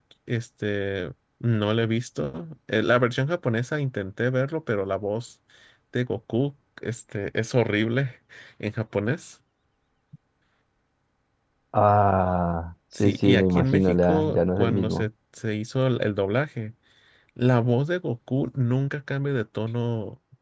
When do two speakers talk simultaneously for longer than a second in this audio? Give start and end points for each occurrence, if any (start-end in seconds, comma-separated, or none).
13.0-15.1